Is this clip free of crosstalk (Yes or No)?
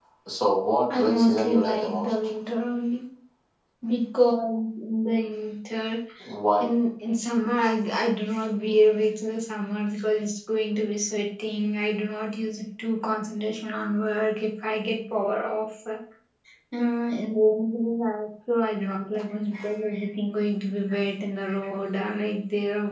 No